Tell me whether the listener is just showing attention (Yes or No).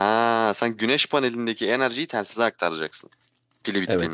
No